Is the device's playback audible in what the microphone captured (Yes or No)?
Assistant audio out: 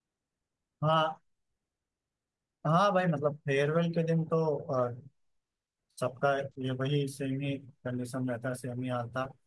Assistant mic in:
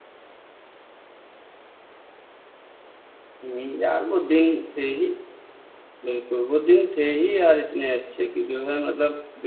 No